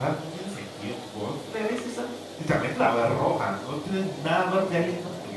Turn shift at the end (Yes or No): Yes